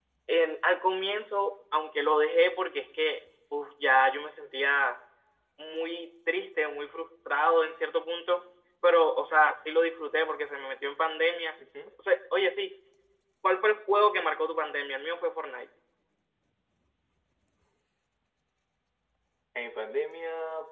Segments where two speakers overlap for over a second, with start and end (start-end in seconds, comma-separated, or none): none